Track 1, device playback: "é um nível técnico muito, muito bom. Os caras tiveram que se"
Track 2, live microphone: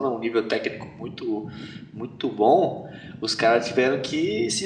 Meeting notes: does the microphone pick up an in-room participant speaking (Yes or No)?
No